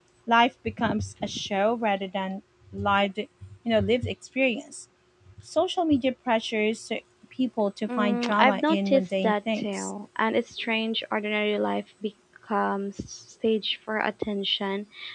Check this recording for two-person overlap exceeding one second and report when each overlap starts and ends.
7.9-9.9

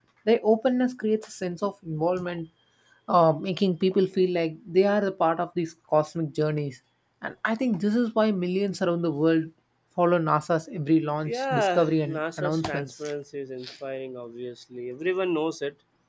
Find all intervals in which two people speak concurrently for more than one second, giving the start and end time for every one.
11.2-12.9

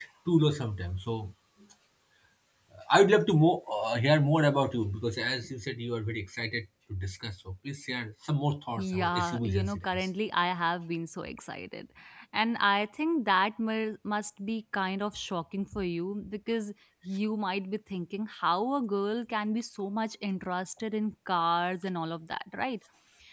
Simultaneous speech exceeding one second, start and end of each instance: 8.8-10.1

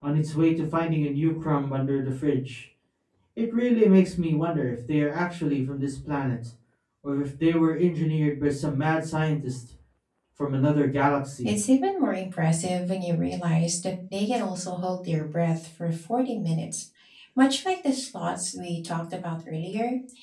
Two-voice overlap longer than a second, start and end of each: none

